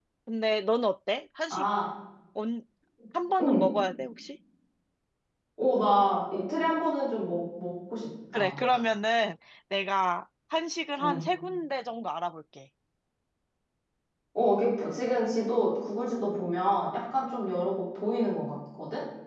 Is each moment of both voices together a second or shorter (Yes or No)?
Yes